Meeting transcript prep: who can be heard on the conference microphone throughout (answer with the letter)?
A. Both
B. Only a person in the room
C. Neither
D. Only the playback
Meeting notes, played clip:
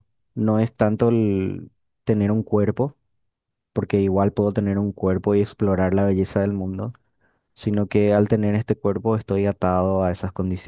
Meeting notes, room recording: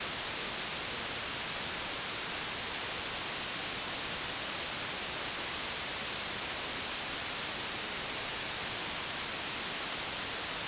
C